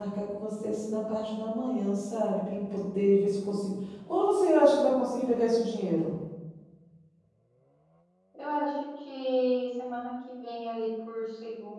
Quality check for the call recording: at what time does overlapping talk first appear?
none

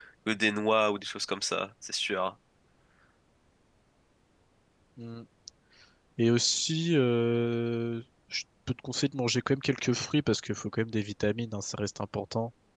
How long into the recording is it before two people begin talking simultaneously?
none

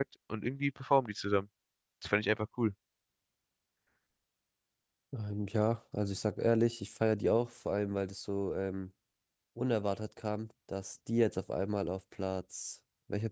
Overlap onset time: none

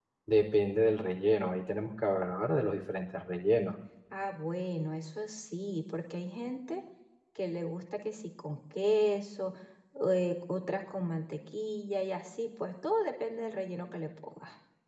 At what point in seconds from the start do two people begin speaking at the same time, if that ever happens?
none

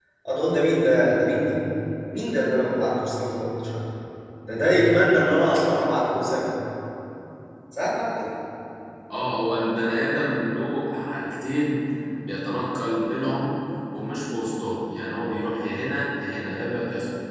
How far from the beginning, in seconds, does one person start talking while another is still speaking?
none

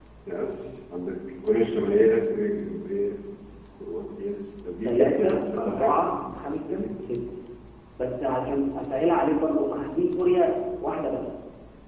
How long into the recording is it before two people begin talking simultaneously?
4.8 s

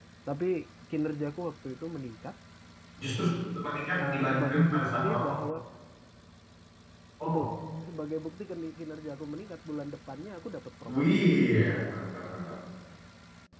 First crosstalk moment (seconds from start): 4.0 s

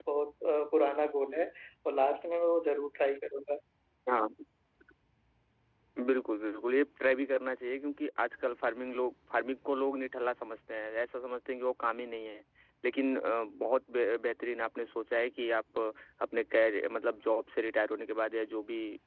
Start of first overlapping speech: none

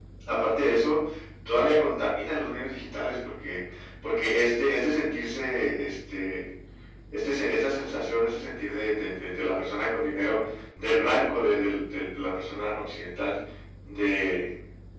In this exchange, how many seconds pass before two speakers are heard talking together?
none

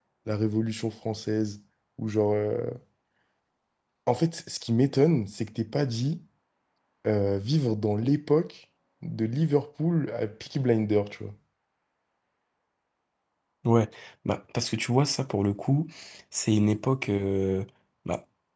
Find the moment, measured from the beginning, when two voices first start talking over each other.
none

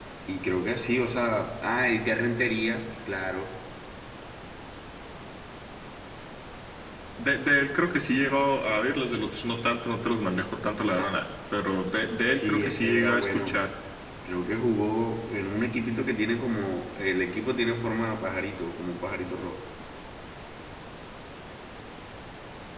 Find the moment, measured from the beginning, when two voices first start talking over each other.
12.4 s

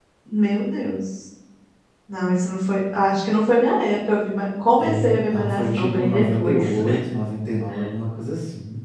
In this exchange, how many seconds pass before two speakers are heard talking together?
4.8 s

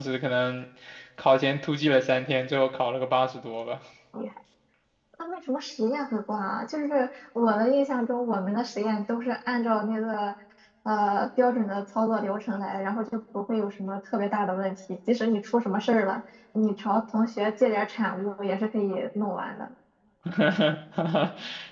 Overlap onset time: none

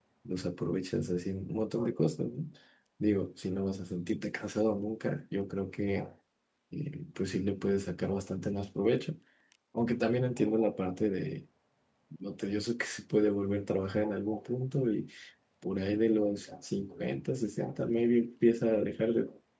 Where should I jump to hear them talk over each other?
none

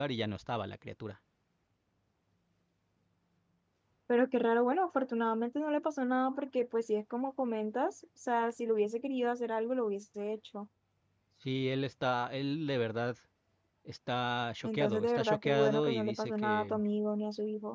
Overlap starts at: 14.6 s

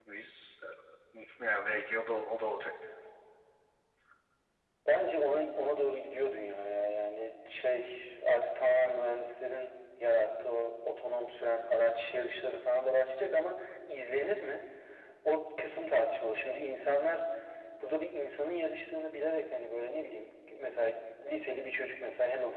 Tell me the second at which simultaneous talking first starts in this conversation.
none

